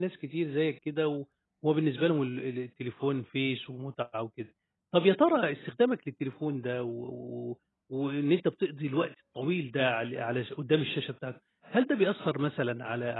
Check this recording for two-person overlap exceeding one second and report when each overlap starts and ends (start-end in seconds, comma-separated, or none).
none